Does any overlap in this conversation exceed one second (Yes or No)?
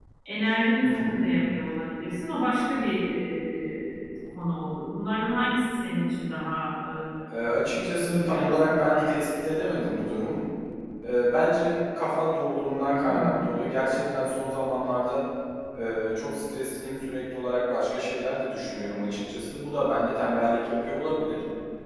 Yes